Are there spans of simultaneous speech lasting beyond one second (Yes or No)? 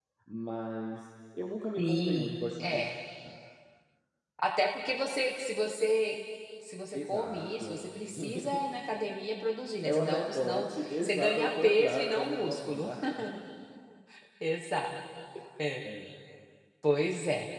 Yes